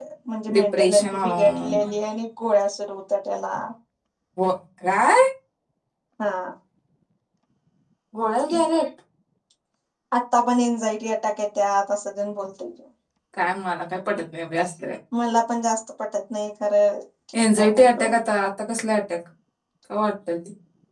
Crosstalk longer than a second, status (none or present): present